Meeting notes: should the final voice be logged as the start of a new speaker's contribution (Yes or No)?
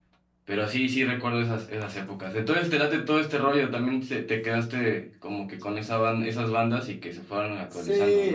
Yes